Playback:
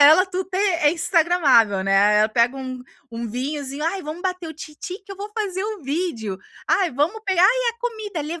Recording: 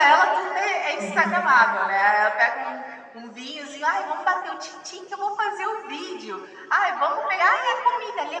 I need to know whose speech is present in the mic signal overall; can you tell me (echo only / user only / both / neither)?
both